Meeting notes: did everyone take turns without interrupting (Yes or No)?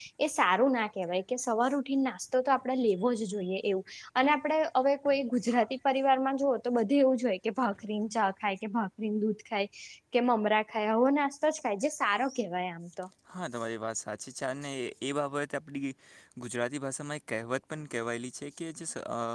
Yes